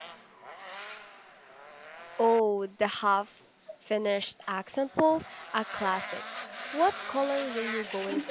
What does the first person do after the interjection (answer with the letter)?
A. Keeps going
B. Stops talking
B